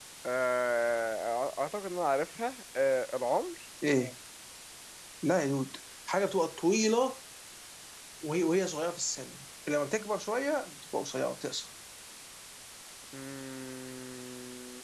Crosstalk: none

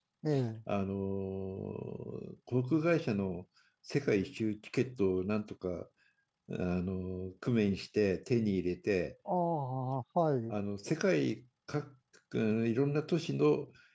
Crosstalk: none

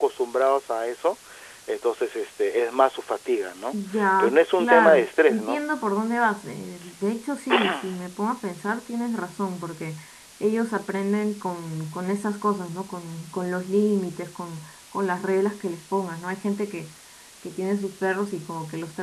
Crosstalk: present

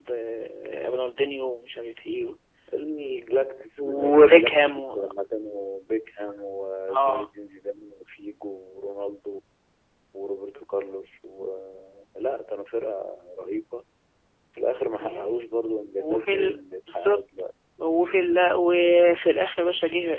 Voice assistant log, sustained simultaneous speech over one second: present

